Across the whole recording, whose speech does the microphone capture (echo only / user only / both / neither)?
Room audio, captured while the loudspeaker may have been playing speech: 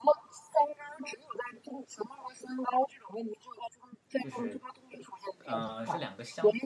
both